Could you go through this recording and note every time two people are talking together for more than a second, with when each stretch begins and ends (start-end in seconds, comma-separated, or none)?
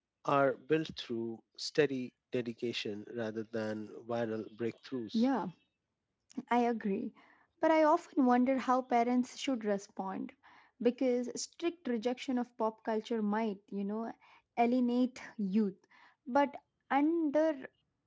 none